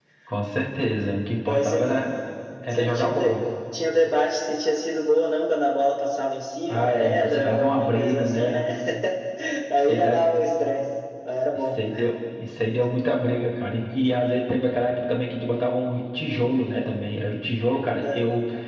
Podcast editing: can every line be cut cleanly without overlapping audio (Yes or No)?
No